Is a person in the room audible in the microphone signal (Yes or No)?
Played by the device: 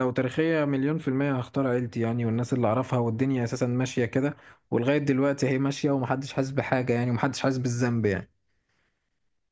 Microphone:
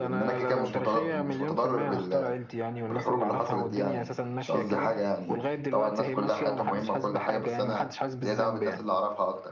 Yes